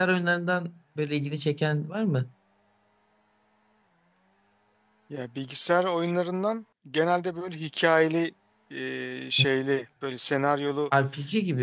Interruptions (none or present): none